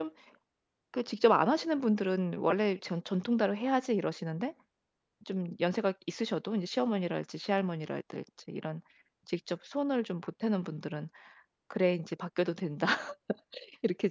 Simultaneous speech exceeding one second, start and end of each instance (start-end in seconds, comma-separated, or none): none